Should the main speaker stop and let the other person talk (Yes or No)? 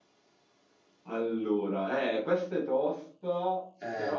No